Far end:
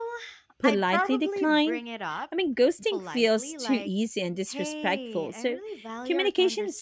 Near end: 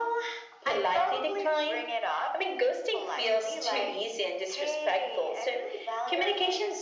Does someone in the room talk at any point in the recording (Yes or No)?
No